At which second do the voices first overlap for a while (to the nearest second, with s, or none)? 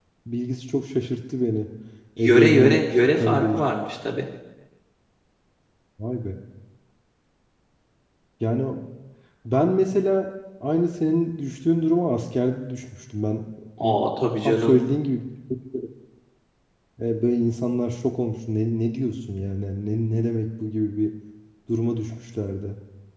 2 s